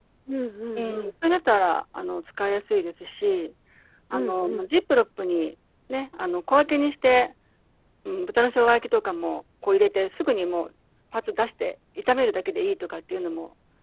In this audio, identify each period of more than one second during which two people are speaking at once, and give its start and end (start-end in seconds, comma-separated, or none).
none